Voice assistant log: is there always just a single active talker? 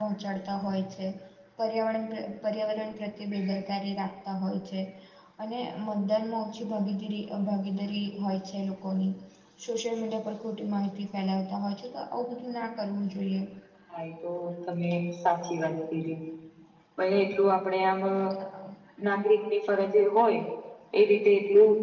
Yes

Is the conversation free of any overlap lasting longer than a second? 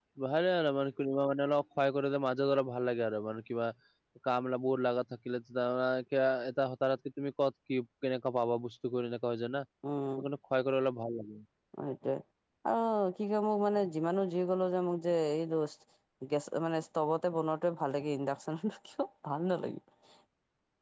Yes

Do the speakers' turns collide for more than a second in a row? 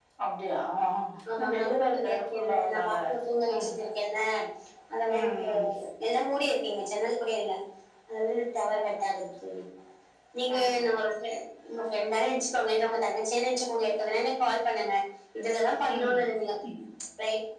Yes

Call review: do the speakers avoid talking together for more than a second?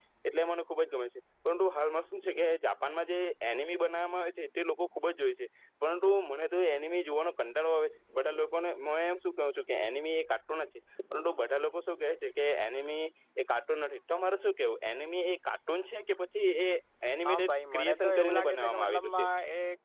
No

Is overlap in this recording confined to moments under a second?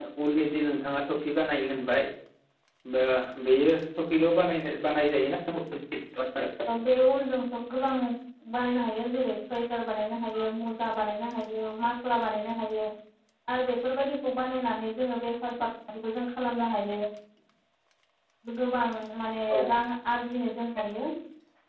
Yes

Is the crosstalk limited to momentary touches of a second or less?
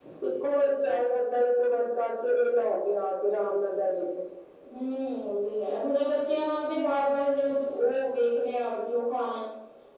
Yes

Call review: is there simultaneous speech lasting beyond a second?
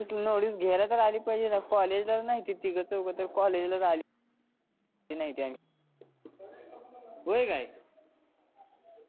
No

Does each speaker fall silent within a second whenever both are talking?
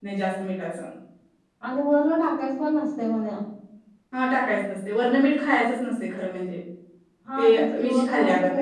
No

